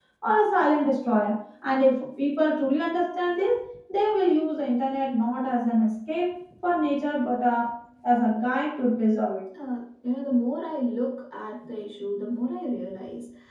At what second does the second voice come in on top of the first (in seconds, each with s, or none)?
none